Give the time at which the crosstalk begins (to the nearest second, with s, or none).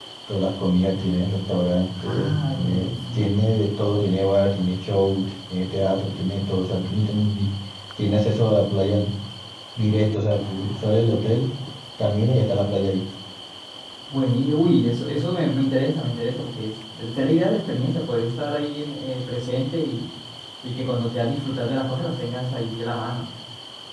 2 s